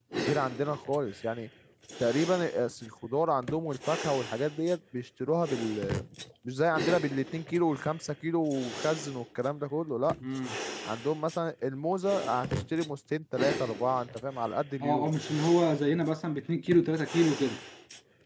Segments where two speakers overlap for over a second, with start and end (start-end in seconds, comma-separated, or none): none